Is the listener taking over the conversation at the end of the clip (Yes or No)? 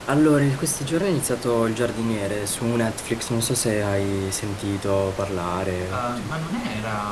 Yes